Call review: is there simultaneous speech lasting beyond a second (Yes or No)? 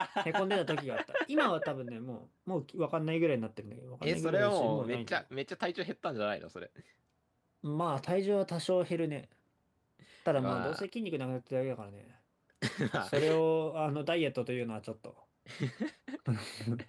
Yes